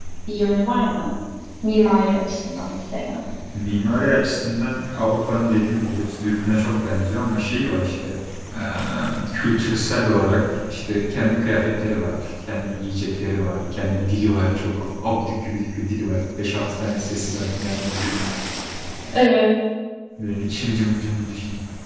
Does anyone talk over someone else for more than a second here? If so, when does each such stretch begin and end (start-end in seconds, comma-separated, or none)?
none